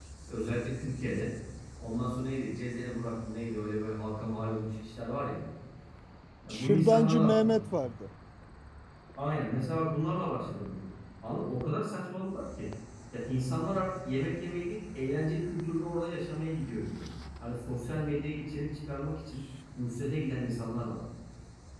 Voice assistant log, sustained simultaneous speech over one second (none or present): present